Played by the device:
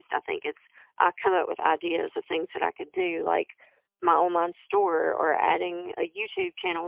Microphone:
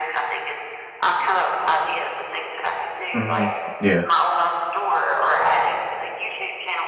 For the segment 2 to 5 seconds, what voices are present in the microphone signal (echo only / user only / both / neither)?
both